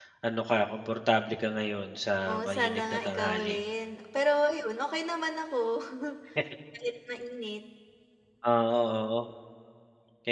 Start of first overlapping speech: 2 s

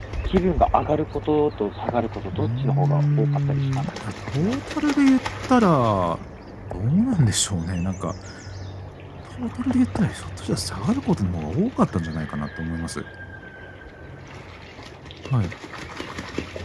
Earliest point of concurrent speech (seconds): 2 s

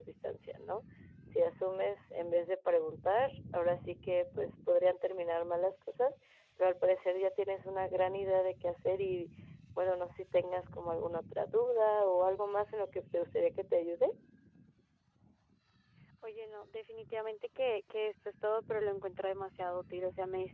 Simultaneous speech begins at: none

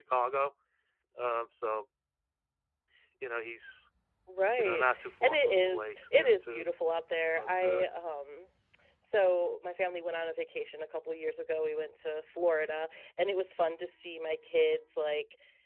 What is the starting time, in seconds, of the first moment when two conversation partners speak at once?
5 s

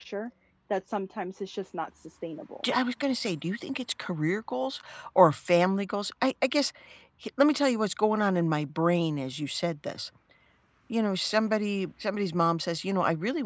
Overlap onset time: none

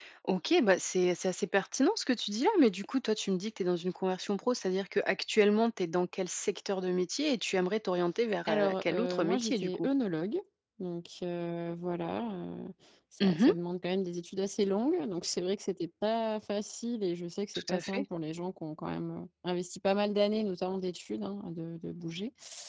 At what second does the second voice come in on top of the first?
8 s

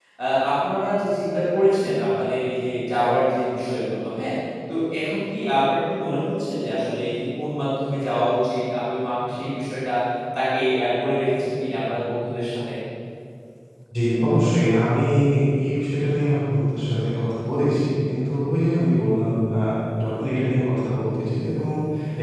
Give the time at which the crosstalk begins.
none

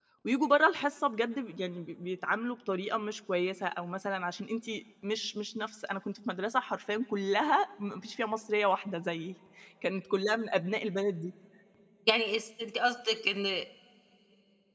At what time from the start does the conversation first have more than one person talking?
none

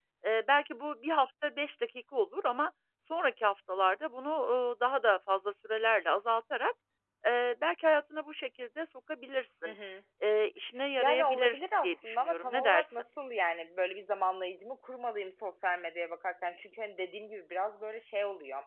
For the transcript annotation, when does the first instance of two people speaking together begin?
11 s

